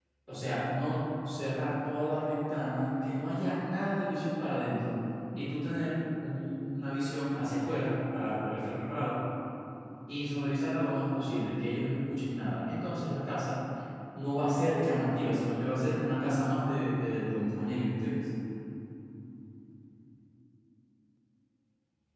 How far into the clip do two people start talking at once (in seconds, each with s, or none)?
none